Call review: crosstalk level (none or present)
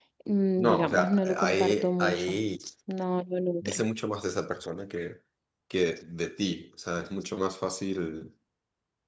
present